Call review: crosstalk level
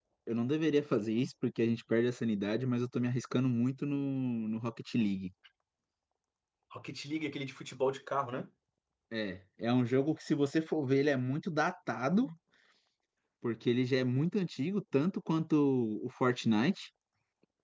none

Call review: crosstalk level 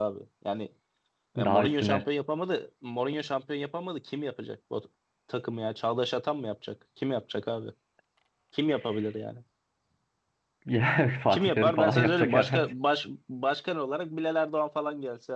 present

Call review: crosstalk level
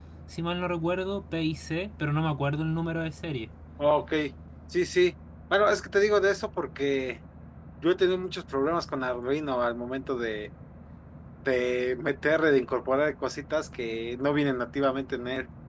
none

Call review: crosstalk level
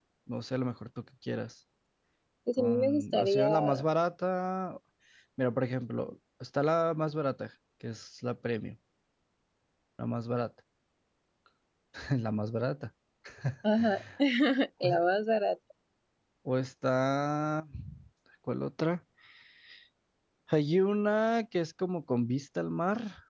present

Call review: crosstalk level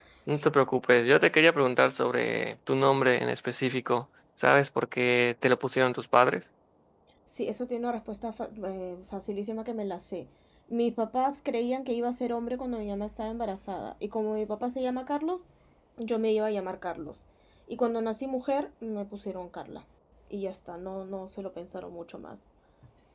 none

